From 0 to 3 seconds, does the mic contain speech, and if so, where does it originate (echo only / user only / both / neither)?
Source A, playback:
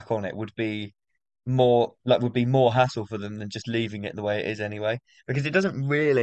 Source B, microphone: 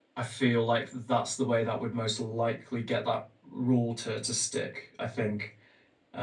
user only